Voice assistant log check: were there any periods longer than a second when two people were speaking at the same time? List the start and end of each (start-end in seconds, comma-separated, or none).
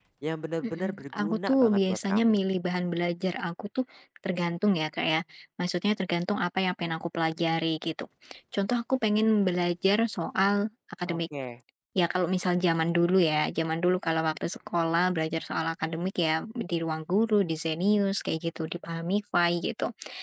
0.6-2.4